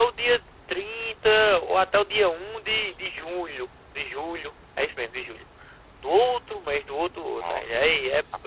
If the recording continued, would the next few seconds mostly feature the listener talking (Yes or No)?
Yes